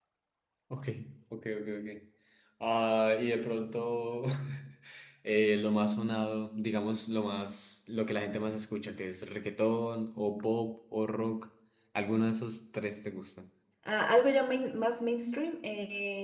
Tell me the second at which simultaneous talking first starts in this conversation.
none

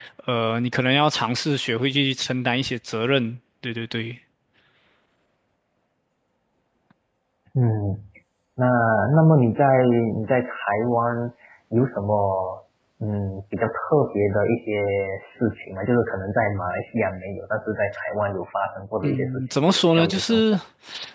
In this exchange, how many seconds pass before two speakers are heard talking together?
19.0 s

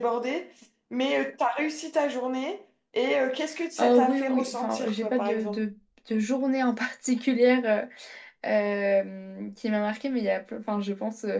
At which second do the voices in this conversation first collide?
3.8 s

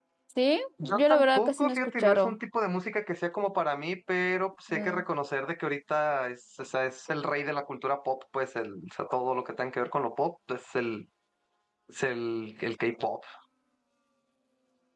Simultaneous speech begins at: 0.8 s

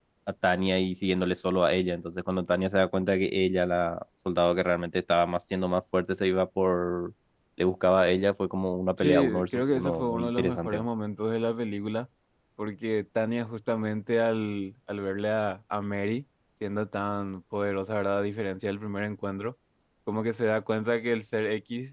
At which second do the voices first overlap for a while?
9.0 s

